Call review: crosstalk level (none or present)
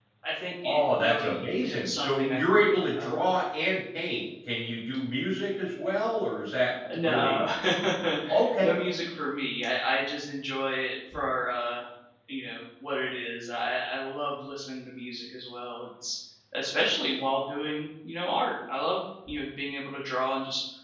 present